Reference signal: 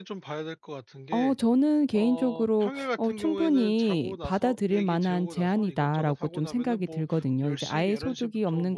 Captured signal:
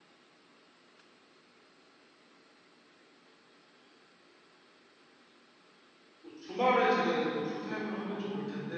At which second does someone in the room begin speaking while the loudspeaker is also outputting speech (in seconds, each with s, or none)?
6.2 s